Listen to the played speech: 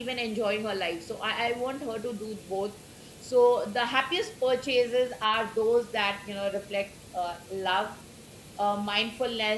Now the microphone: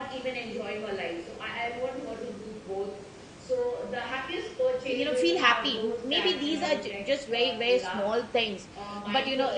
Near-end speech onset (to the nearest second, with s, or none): 5 s